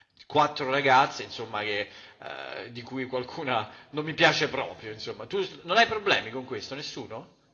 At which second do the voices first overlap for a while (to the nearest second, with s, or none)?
none